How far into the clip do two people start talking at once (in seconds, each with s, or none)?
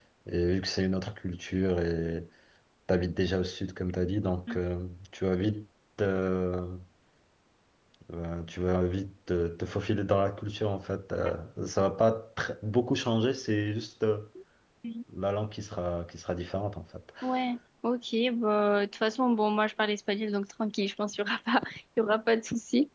none